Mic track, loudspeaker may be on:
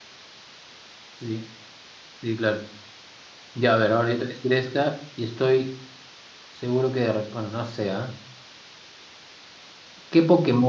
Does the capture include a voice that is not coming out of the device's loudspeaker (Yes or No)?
Yes